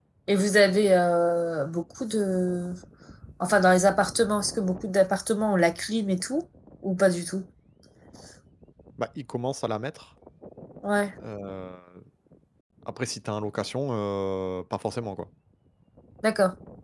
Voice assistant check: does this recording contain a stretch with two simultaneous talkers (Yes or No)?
No